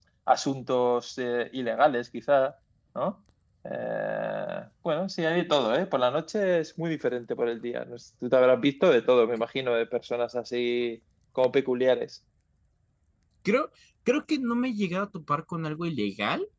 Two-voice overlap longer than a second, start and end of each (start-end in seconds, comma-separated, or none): none